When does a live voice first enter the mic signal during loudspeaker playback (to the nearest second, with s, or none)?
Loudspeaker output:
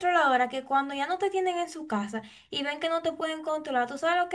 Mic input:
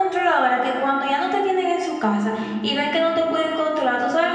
none